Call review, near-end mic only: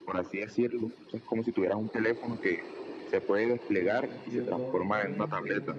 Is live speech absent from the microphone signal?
No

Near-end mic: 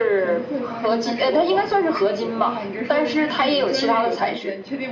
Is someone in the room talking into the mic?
Yes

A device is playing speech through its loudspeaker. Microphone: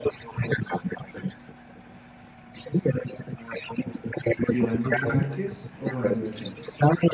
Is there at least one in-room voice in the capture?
Yes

